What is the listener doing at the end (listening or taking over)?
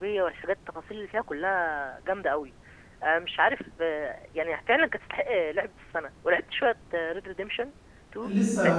taking over